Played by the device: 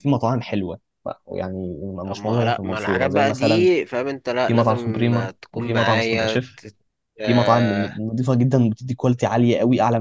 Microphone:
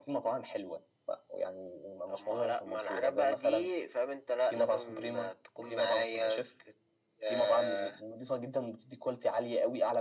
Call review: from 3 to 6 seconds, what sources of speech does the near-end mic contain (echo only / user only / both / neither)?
echo only